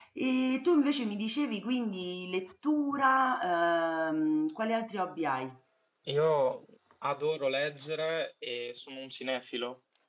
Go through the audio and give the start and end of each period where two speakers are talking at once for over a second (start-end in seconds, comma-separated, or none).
none